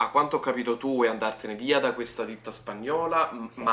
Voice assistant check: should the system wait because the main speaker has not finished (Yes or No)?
Yes